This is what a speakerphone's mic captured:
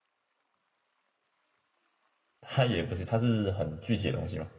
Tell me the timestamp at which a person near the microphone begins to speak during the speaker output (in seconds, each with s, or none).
2.4 s